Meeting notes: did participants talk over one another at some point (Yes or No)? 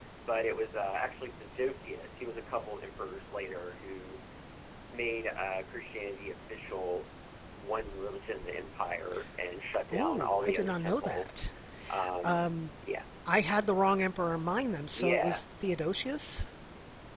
Yes